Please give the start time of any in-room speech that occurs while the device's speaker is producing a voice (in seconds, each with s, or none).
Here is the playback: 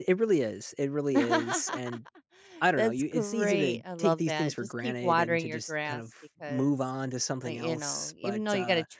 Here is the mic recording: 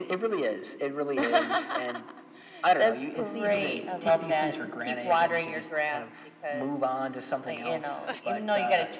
none